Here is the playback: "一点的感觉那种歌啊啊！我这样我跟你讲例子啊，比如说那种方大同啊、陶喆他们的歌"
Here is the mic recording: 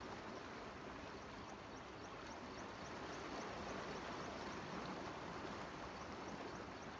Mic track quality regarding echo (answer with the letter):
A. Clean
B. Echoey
A